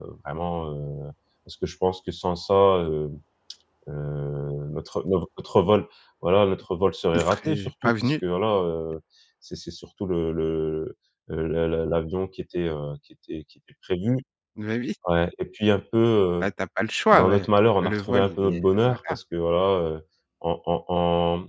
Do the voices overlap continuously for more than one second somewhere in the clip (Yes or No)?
Yes